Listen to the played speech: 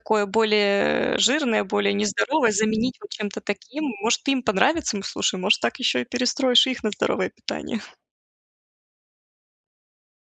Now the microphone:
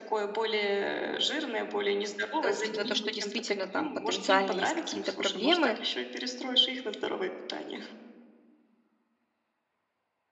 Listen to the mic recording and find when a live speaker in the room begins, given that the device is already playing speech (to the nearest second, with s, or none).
2 s